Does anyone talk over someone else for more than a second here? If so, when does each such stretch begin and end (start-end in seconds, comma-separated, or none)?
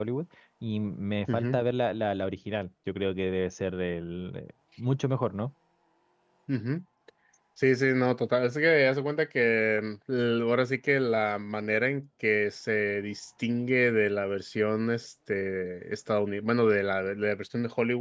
none